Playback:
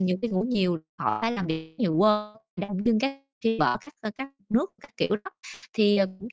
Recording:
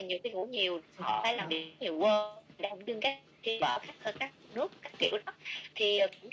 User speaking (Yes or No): Yes